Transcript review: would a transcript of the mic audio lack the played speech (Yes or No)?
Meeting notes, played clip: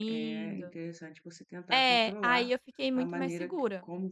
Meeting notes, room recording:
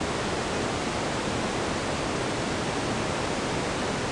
Yes